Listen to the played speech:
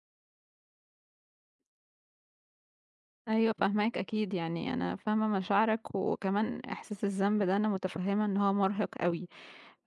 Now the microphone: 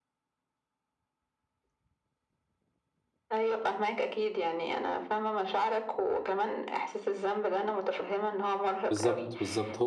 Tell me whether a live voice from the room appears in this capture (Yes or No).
Yes